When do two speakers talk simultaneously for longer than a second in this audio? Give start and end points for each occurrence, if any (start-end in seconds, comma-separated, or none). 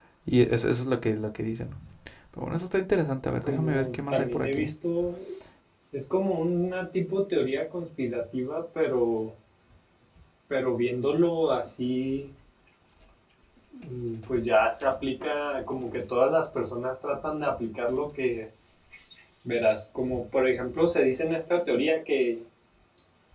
3.4-4.7